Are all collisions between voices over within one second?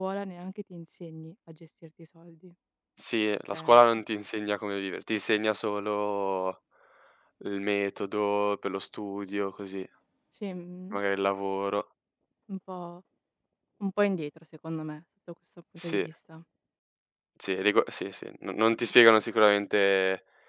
Yes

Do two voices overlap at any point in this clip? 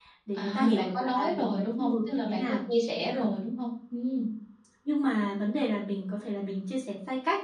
Yes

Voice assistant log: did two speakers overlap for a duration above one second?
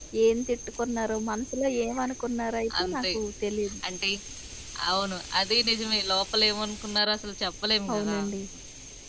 No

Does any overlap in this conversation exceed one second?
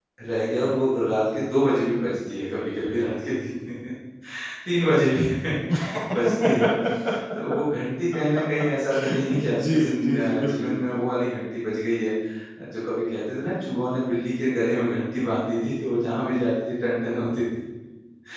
Yes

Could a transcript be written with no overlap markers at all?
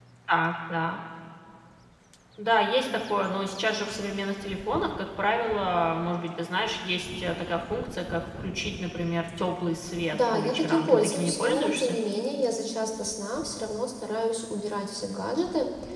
No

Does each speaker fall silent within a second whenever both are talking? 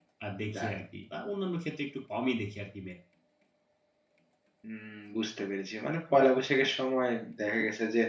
Yes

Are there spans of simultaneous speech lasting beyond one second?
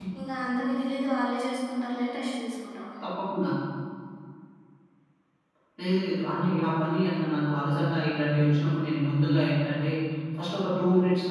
No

